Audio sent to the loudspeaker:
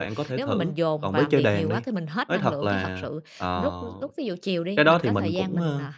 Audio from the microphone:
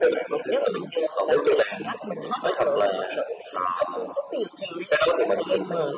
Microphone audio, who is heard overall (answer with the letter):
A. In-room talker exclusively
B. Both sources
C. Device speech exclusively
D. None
C